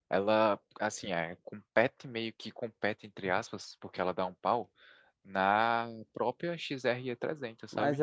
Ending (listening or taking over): taking over